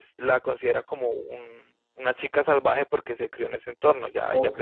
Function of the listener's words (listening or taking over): taking over